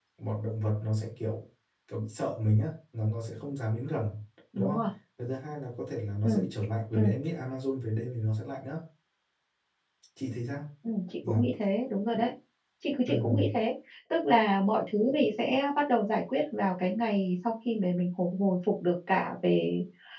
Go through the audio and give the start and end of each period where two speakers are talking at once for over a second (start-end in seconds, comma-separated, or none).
none